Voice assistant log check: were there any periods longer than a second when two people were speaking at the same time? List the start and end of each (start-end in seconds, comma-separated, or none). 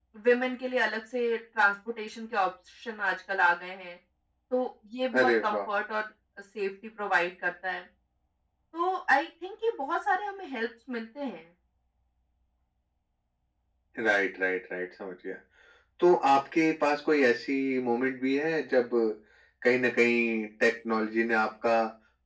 none